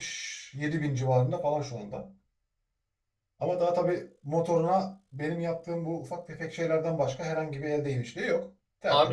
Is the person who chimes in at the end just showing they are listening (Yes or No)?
No